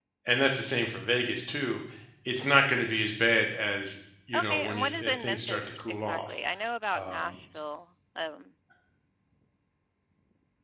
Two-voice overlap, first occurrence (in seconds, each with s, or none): 4.3 s